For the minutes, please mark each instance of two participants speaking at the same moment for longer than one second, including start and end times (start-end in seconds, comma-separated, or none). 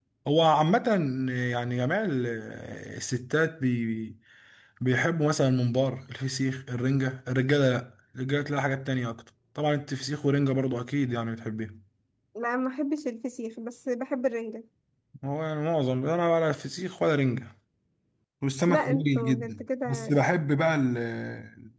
18.7-20.2